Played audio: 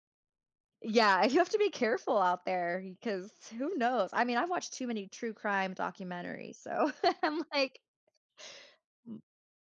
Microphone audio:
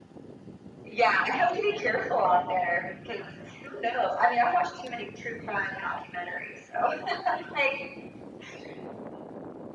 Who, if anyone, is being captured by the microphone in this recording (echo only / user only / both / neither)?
echo only